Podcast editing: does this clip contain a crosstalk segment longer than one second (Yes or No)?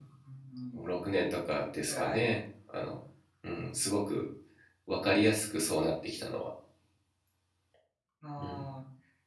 No